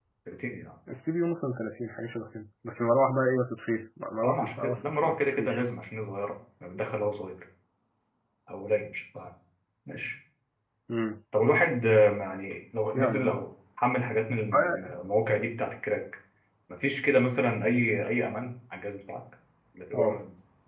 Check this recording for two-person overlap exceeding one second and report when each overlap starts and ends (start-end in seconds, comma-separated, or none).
4.2-5.6